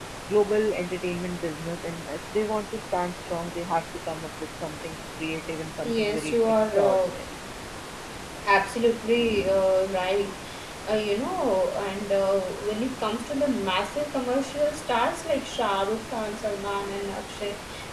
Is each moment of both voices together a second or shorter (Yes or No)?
No